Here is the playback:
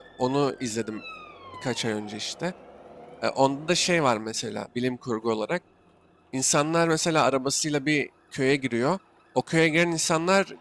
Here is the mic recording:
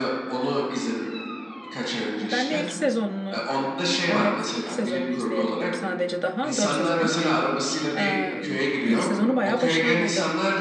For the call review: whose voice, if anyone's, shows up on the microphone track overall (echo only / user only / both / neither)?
both